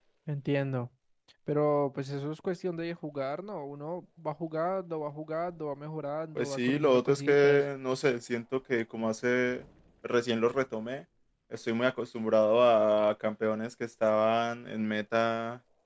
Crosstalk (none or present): present